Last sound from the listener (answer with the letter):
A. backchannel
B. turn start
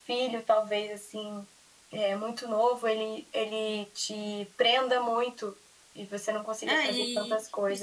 B